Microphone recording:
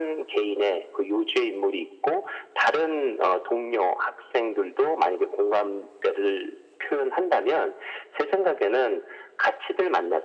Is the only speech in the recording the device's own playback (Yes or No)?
Yes